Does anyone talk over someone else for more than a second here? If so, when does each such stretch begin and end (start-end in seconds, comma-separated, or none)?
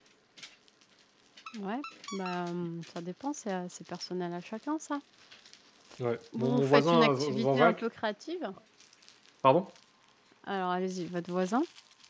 6.4-7.7